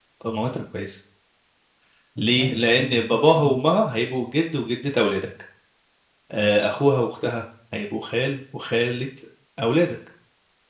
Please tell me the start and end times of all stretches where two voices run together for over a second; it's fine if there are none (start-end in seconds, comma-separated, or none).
2.2-3.6